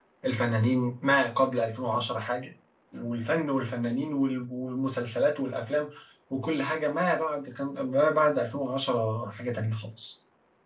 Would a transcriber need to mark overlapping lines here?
No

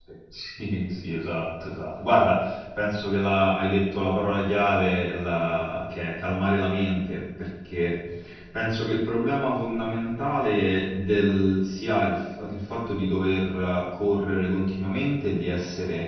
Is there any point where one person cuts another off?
No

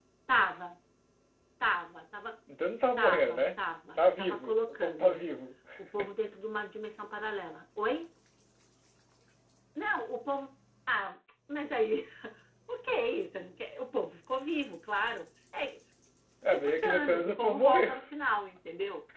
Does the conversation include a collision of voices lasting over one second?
Yes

